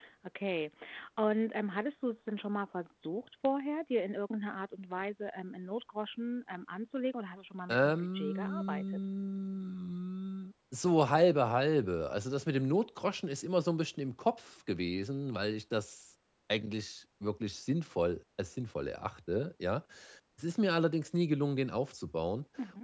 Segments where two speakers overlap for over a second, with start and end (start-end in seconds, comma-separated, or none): 7.7-9.1